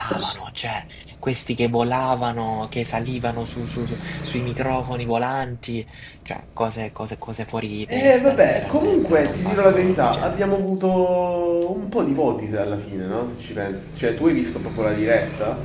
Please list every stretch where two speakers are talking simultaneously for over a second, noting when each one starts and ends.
7.9-10.4

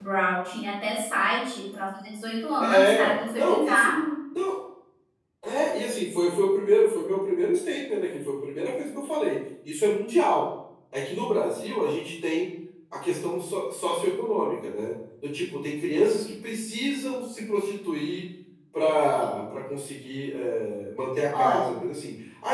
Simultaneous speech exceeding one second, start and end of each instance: 2.6-3.9

